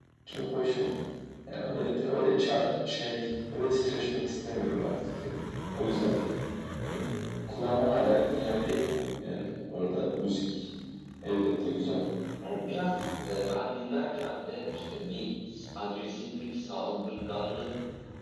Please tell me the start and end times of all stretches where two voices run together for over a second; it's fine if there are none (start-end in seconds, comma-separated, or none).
none